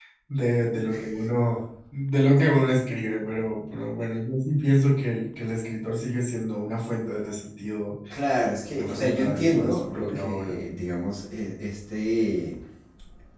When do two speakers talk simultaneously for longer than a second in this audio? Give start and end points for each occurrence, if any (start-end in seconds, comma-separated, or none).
8.8-10.6